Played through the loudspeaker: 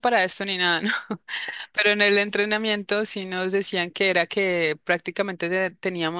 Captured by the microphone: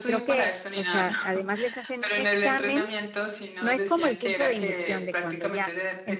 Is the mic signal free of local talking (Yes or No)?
No